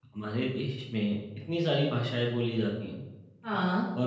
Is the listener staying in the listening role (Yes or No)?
Yes